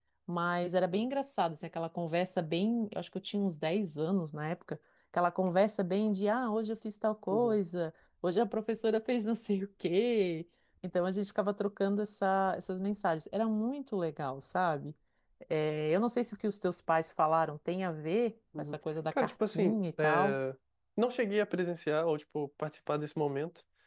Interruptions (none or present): present